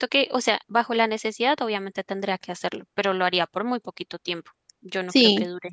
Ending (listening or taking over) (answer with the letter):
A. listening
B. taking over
B